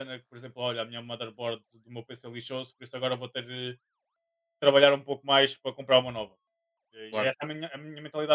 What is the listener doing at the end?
listening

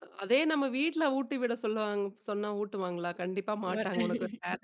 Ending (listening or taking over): listening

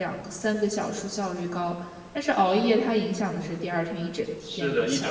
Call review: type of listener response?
taking over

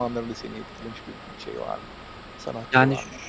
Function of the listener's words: taking over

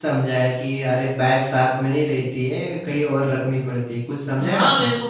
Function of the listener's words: taking over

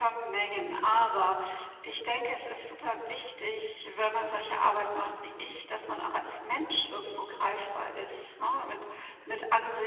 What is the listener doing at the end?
listening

